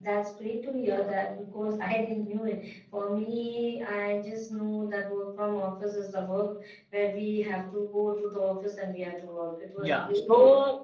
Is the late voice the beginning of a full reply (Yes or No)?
Yes